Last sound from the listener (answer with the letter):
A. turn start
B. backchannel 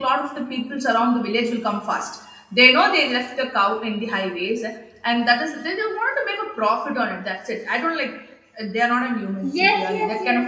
A